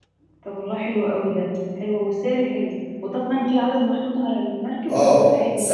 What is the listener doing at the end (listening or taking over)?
taking over